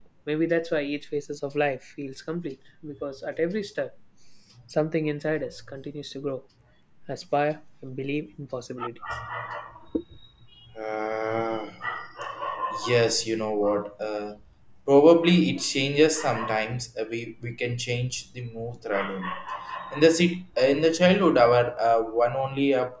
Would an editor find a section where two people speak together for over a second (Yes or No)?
No